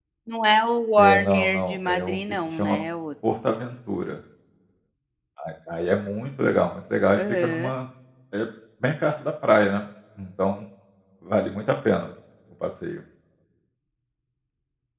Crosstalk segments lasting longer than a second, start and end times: 1.0-2.8

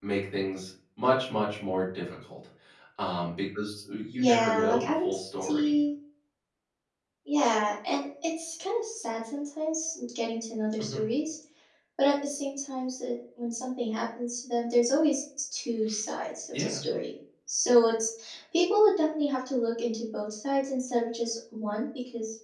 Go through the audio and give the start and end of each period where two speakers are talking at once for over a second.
4.2-5.8

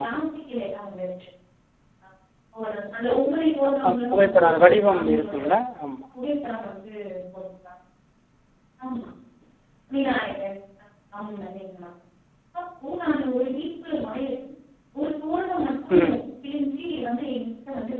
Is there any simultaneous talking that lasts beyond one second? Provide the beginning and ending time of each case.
3.9-5.4

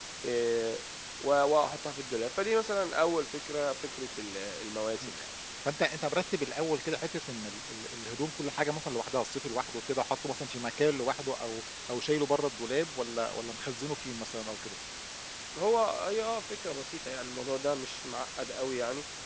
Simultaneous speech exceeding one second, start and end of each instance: none

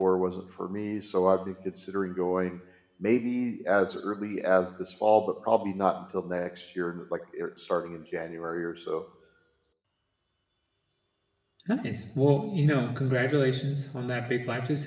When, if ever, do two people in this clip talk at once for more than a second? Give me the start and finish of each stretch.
none

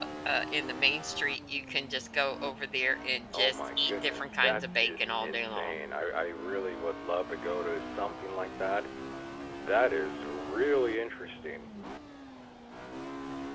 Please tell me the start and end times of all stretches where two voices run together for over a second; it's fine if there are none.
3.3-5.8

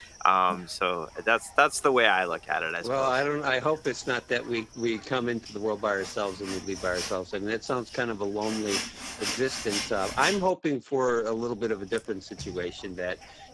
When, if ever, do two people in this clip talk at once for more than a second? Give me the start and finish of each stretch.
none

